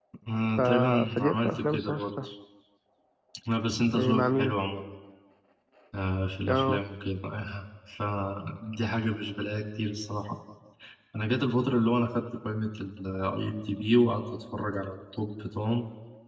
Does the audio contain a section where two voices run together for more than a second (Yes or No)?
Yes